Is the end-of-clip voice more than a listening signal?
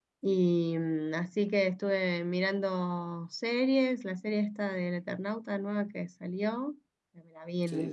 No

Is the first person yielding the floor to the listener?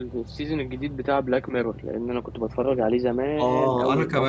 Yes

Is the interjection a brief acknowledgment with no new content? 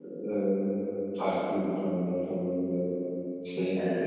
No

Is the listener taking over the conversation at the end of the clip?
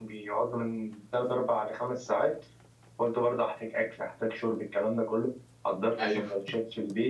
No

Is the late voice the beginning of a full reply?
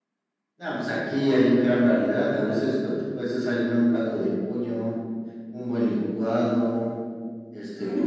No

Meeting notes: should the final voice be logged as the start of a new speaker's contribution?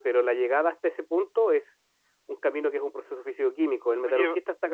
No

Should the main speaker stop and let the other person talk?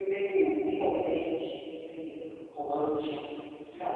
Yes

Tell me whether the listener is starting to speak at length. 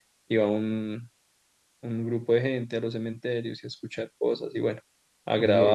Yes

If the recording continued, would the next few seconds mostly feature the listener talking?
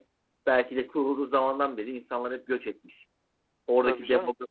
No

